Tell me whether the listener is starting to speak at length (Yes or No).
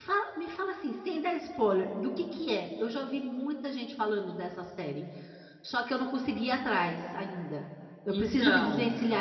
No